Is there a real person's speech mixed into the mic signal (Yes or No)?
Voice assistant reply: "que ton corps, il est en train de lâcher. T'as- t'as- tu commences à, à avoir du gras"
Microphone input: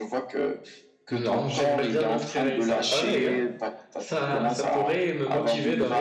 Yes